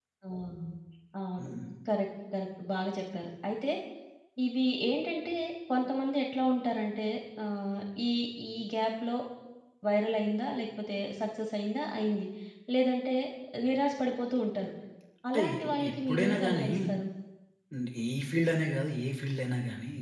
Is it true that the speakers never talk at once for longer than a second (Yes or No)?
No